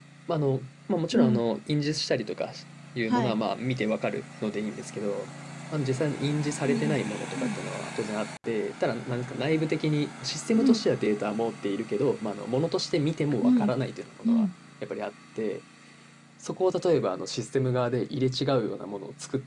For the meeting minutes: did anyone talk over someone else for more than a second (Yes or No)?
No